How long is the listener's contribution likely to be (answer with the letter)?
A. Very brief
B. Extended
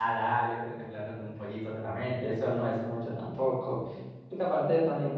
B